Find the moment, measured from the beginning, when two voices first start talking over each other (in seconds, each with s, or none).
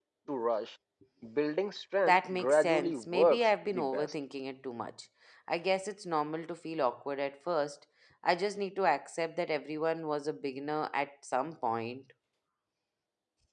2.0 s